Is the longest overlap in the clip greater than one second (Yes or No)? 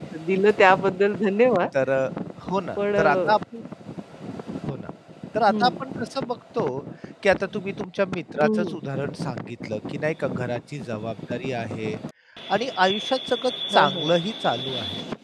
No